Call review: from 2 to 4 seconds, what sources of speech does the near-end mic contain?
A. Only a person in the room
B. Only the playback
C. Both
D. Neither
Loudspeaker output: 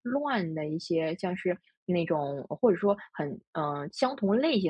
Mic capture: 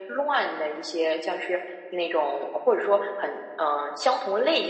B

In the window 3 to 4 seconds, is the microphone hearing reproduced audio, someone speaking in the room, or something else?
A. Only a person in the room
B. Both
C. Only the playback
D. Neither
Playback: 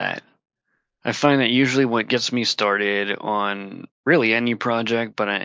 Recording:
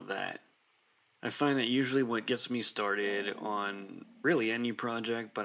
B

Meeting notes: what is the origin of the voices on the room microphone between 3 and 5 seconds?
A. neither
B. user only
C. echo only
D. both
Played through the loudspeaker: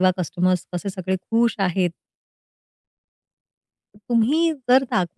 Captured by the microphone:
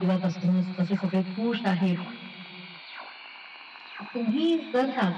C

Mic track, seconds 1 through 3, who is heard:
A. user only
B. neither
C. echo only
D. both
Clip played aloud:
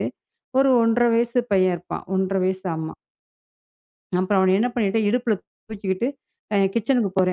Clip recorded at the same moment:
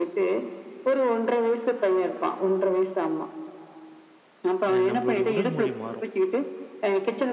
C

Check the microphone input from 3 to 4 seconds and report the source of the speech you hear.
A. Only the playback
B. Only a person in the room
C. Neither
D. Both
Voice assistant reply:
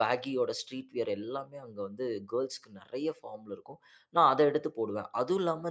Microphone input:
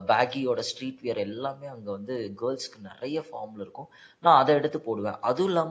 A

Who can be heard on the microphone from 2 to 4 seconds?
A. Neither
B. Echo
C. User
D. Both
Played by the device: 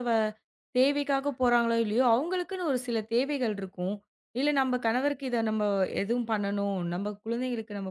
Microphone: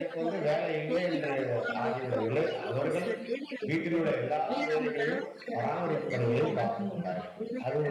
D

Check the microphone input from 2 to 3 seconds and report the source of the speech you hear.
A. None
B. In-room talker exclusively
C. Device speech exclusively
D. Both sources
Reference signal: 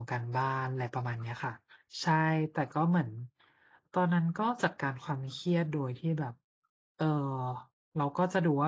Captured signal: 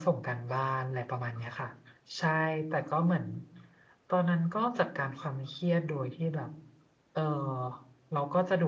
C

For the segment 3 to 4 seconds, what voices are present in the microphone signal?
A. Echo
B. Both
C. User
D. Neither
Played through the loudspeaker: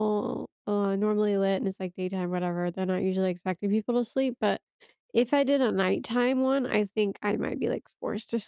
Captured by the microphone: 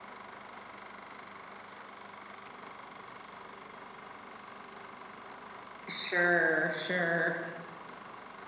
D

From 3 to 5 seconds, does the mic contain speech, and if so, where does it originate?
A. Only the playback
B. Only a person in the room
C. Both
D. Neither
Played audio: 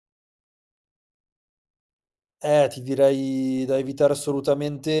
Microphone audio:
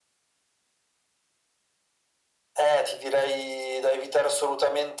A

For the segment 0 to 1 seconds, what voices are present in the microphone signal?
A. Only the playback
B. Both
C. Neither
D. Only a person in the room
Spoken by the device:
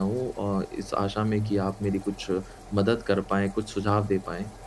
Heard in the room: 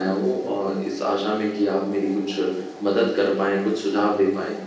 A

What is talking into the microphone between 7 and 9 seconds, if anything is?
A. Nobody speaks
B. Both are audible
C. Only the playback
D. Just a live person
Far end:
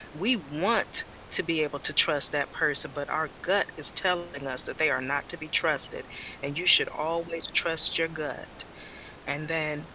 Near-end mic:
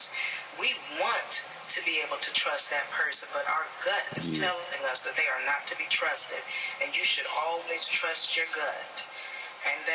C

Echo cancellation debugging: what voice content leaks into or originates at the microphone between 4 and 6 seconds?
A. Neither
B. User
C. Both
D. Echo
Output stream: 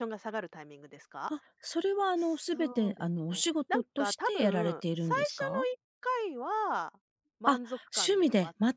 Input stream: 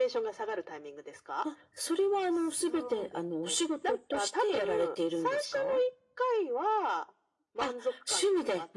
D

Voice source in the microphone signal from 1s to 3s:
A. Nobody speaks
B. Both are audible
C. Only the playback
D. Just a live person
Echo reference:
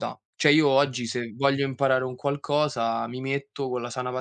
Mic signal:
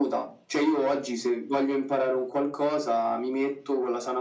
C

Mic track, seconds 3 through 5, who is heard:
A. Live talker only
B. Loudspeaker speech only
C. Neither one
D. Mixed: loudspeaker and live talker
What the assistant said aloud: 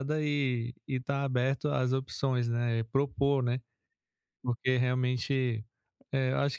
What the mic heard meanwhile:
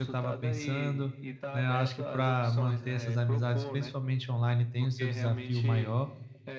D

